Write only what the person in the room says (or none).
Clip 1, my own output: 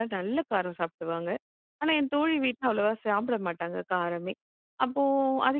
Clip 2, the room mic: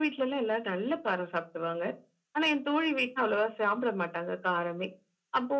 none